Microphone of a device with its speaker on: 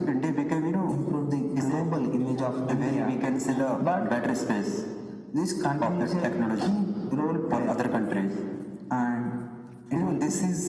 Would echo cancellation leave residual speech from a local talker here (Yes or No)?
No